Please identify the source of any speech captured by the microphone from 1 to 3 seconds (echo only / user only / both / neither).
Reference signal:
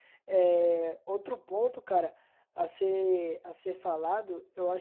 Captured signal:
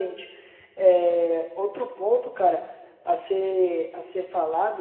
echo only